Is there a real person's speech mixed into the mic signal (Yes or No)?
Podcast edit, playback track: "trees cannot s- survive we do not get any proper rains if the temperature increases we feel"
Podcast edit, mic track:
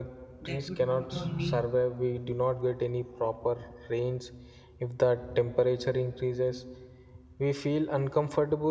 Yes